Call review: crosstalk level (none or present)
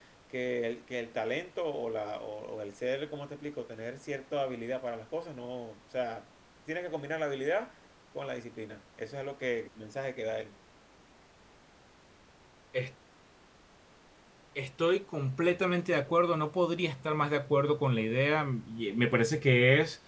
none